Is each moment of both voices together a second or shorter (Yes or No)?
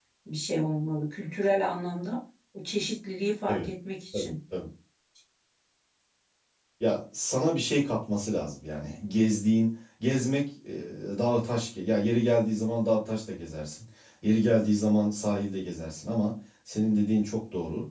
Yes